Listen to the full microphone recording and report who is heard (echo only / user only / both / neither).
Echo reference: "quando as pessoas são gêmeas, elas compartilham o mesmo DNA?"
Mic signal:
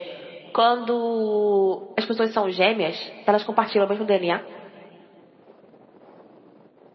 echo only